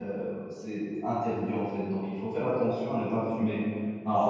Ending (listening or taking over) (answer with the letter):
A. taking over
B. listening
A